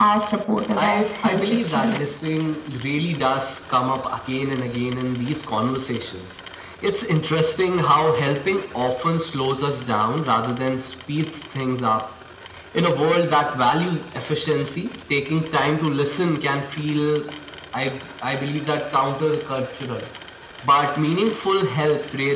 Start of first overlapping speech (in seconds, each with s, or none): 0.5 s